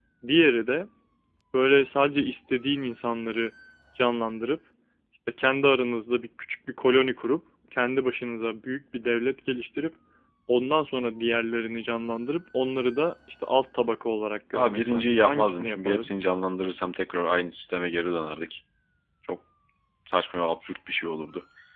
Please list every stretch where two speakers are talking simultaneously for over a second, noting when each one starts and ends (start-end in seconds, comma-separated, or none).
14.5-16.1